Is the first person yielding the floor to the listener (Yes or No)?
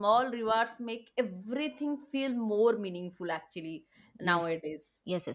Yes